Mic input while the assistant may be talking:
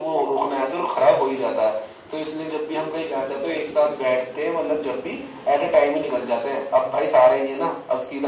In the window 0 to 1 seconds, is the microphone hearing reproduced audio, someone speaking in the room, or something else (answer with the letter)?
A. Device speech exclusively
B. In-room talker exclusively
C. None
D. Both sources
A